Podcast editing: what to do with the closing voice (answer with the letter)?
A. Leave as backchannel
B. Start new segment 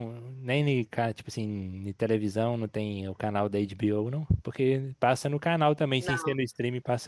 A